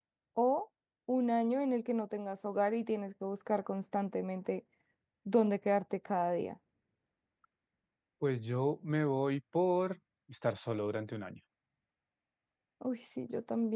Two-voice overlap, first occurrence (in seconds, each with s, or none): none